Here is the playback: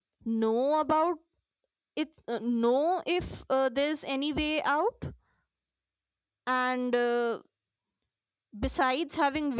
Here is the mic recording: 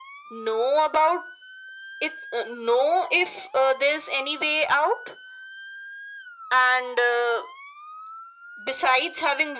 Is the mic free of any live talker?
Yes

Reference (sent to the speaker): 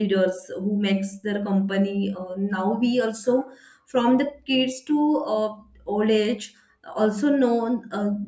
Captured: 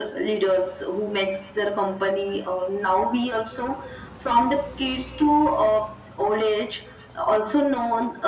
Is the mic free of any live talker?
Yes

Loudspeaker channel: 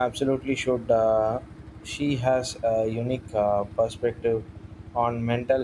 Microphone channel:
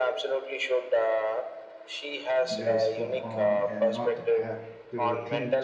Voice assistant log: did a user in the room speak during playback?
Yes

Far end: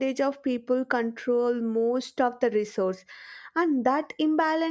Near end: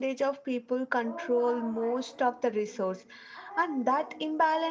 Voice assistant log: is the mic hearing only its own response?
No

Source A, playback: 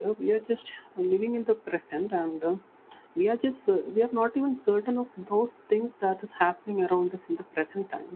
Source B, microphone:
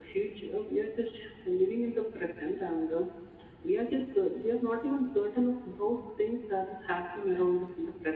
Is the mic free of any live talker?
Yes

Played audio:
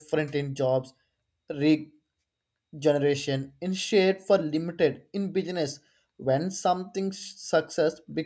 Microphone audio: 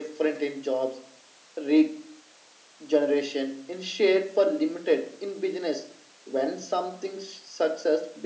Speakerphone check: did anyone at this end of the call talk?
No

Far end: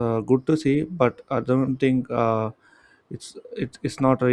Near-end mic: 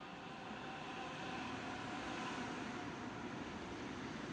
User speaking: No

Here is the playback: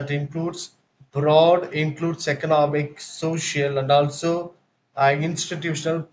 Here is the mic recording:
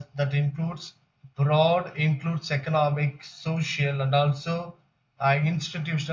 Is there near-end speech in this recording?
No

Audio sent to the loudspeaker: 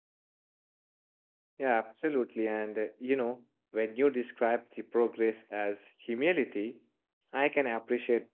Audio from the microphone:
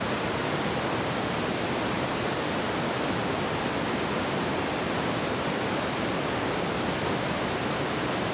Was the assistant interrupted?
No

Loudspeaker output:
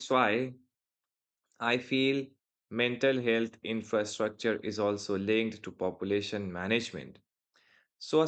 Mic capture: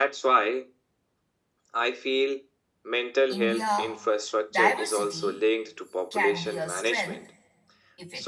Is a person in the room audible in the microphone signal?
Yes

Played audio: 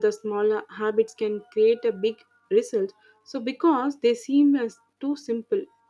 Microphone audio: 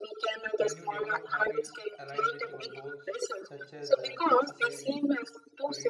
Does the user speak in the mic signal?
Yes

